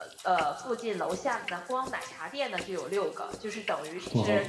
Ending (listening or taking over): listening